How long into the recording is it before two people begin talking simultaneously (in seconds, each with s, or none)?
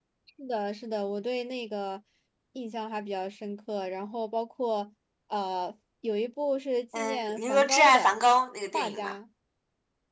7.0 s